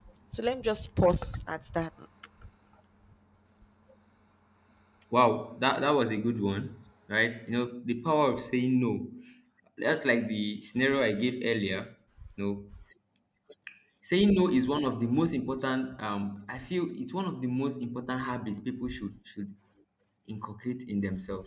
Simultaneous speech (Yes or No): No